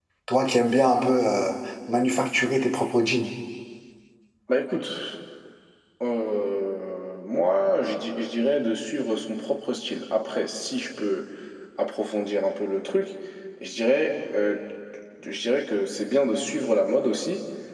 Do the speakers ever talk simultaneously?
No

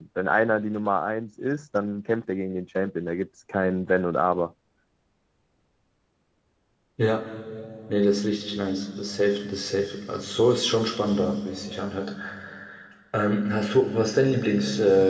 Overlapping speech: No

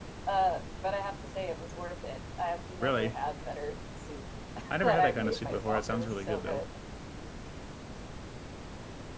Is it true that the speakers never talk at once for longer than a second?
No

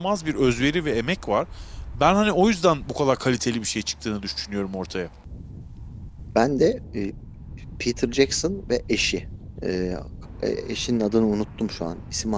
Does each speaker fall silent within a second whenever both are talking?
Yes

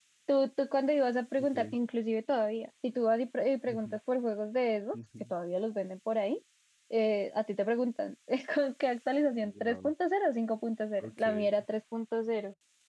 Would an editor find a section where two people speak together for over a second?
No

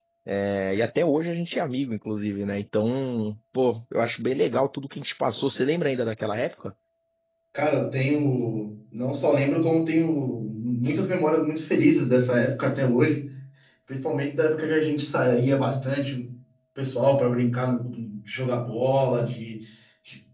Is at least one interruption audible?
No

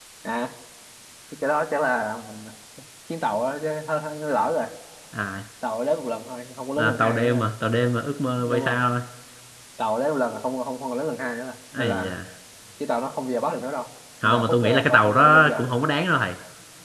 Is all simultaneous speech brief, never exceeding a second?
No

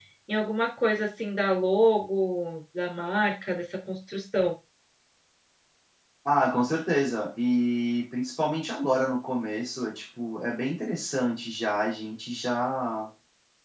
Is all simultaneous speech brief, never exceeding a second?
Yes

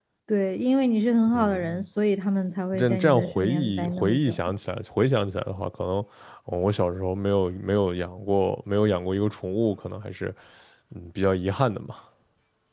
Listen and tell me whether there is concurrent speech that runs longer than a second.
Yes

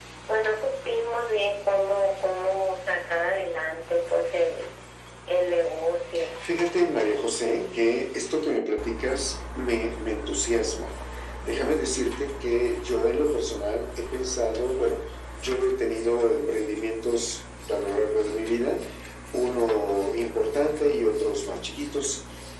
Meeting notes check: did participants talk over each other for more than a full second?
No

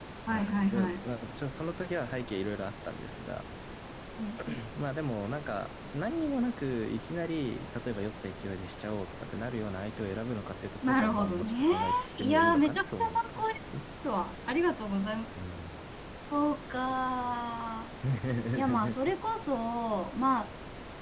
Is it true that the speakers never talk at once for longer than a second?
No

